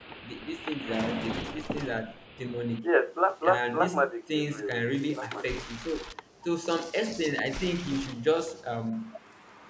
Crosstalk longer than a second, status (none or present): present